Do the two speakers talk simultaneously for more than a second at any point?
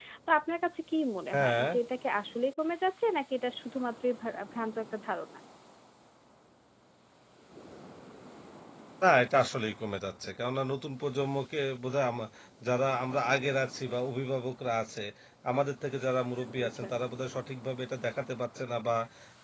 No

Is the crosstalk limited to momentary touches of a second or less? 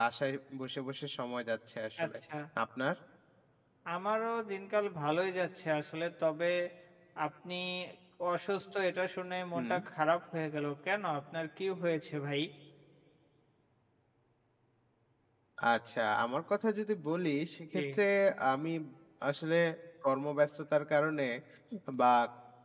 Yes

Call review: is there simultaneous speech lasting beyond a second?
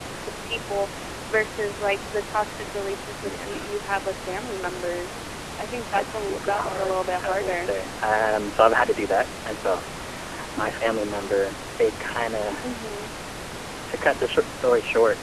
Yes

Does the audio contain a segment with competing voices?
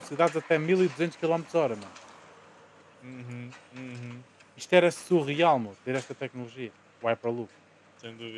No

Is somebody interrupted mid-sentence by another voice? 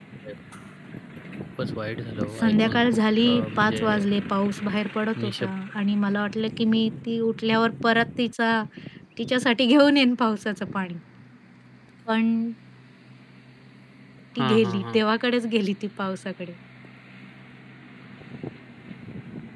Yes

